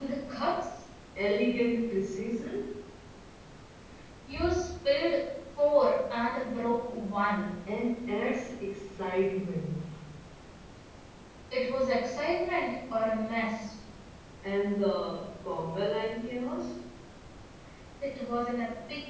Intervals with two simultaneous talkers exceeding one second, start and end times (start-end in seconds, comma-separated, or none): none